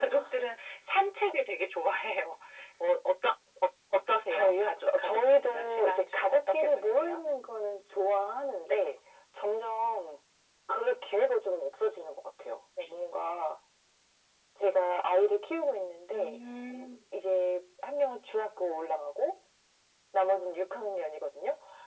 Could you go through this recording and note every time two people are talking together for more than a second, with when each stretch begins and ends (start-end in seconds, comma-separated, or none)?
4.3-7.2